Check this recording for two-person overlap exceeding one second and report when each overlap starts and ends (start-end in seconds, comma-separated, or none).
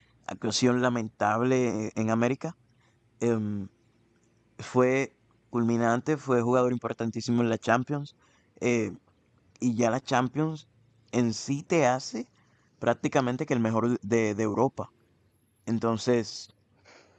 none